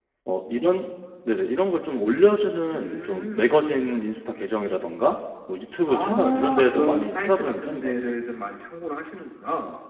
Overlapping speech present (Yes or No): Yes